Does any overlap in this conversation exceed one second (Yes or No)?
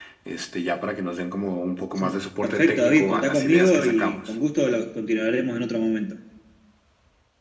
Yes